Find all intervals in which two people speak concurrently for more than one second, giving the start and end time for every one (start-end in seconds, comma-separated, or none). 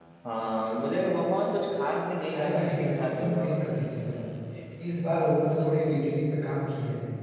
2.3-3.7